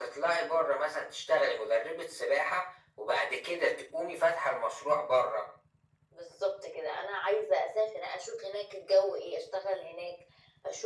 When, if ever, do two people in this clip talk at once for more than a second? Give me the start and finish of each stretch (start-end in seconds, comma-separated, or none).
none